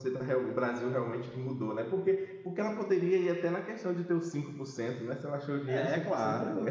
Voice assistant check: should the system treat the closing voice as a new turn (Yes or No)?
Yes